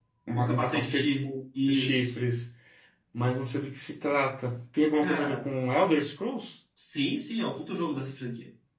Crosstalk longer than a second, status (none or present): present